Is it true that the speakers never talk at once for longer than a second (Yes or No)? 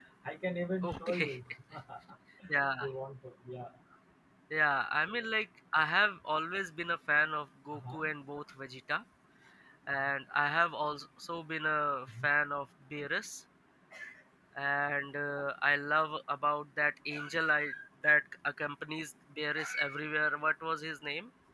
Yes